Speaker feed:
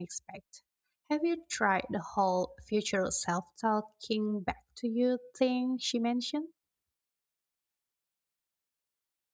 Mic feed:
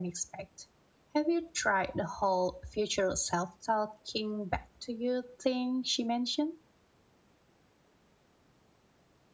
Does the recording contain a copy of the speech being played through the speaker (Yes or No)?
Yes